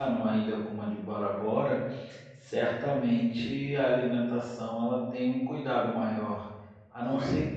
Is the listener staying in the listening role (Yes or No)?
Yes